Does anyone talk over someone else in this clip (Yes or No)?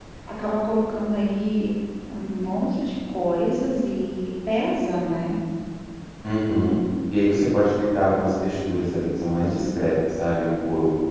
No